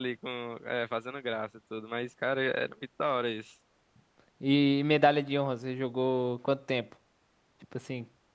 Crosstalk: none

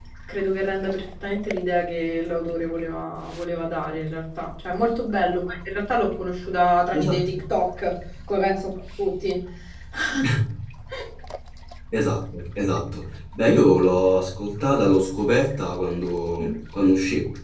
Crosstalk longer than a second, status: none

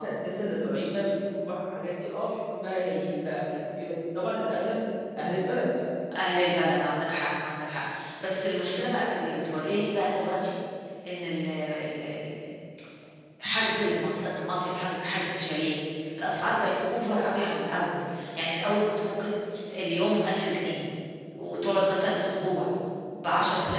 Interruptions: none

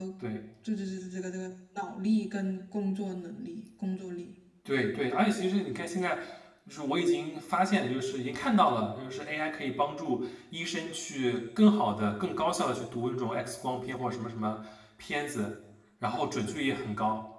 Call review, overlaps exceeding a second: none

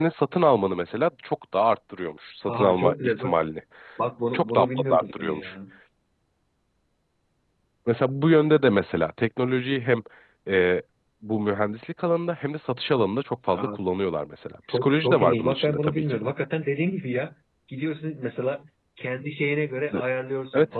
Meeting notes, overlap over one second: present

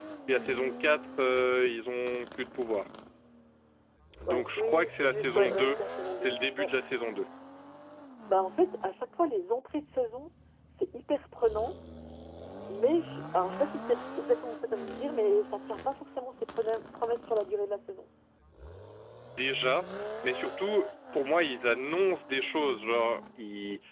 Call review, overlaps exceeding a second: present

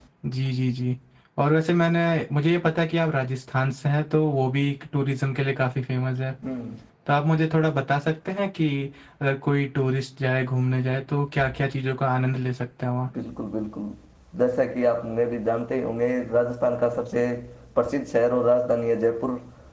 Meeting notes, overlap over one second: none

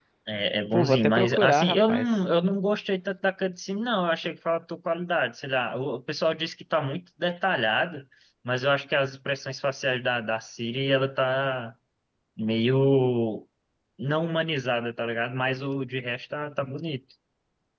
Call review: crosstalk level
present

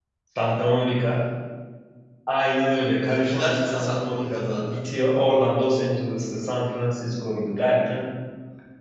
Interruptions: present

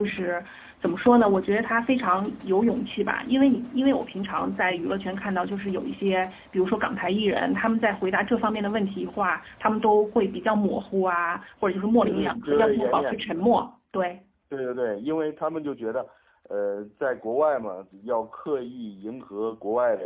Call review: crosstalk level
present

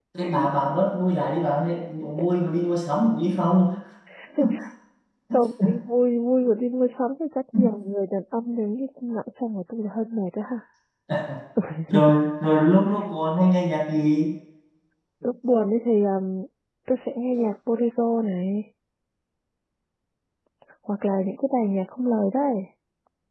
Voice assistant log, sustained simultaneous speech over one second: none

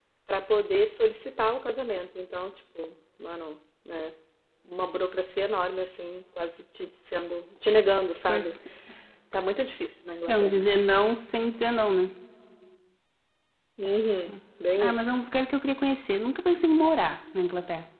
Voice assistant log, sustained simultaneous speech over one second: none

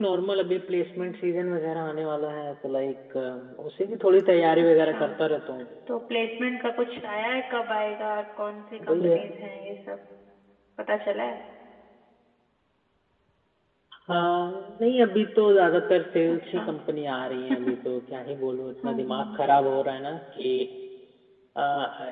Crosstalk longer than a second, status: none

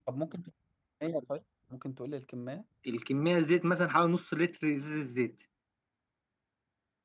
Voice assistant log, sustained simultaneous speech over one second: none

